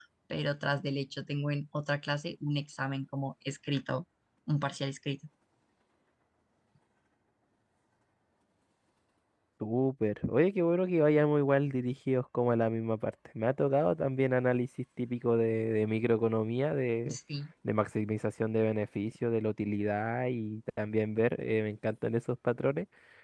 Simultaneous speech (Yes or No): No